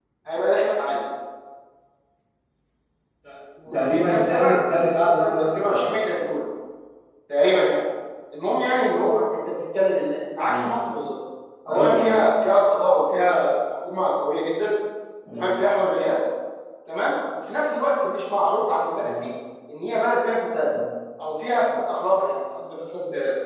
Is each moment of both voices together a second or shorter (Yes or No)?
No